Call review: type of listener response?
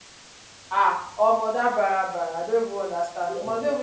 listening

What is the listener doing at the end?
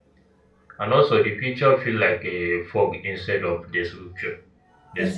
taking over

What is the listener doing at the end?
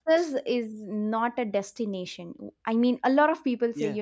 listening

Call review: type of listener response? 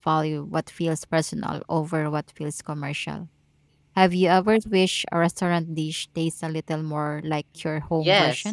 taking over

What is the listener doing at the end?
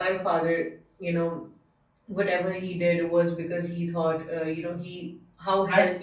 taking over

